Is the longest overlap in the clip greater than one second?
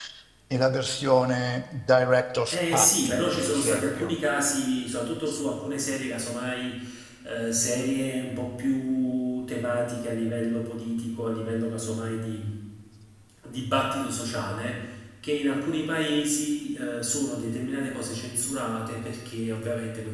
Yes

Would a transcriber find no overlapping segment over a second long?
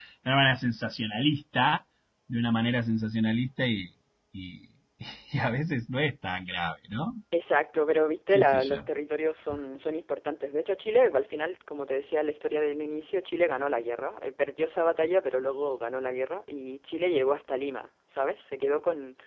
Yes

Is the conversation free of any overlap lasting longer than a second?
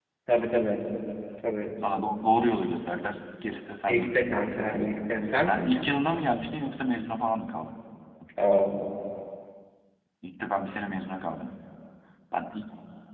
Yes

